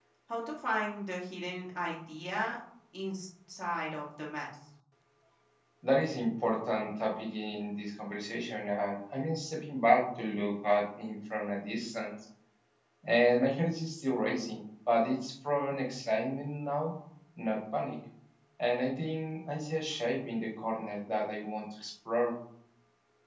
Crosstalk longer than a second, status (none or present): none